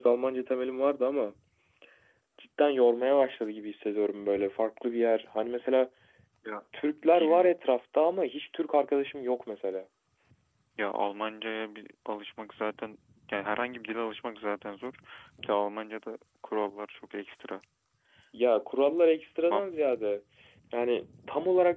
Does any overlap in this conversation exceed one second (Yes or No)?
No